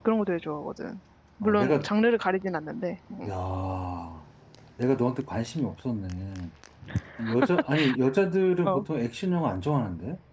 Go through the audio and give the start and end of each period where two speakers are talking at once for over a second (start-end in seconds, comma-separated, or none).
none